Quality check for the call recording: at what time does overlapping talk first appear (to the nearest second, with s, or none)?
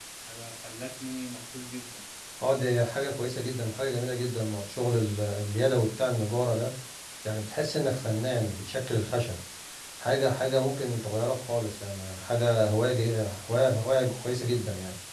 none